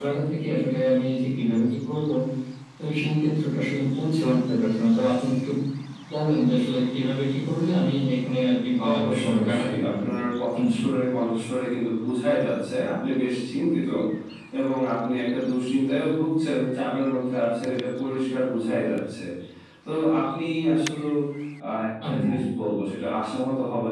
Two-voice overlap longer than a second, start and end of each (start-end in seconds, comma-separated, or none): 8.9-10.2